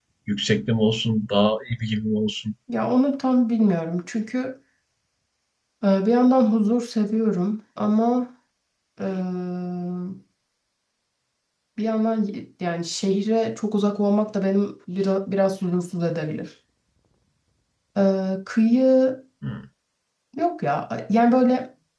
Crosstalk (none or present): none